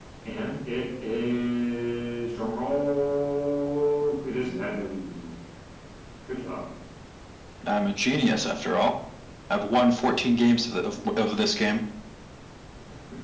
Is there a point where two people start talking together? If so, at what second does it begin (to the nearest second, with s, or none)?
none